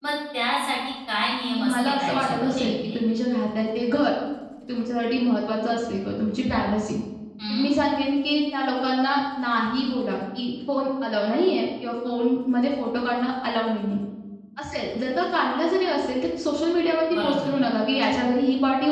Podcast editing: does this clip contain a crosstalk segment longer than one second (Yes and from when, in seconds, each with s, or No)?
Yes, from 1.6 s